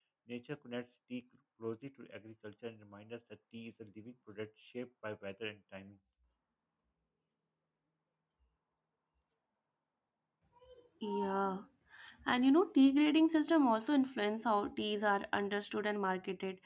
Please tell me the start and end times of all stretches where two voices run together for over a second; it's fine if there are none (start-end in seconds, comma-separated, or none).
none